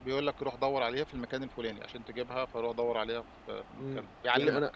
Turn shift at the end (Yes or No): Yes